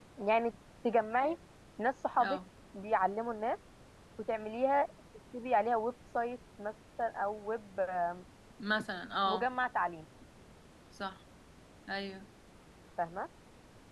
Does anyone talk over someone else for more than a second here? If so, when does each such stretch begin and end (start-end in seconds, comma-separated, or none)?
none